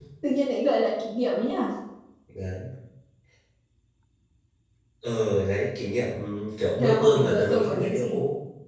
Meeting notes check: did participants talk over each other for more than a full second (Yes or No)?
Yes